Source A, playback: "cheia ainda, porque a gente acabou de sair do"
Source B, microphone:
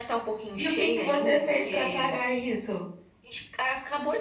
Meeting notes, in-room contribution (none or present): present